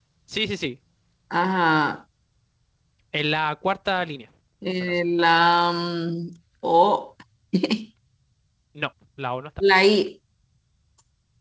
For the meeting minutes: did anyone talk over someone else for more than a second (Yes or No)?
No